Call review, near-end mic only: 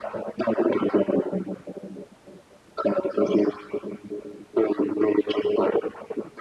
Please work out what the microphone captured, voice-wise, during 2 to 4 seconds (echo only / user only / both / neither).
echo only